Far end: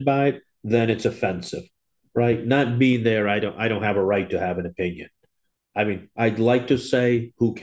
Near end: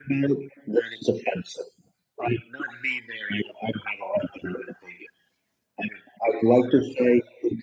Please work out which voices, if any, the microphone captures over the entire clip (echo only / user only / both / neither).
echo only